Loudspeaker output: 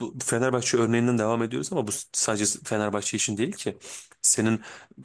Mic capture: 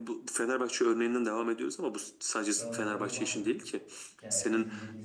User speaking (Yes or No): Yes